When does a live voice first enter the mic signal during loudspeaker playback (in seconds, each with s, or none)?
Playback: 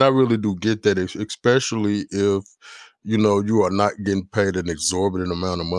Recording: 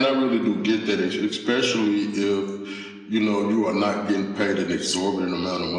none